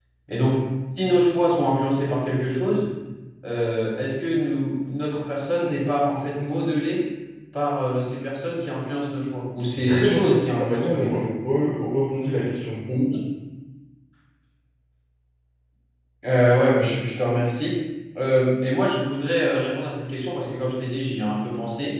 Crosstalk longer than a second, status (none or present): present